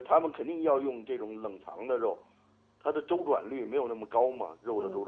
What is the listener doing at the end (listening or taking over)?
taking over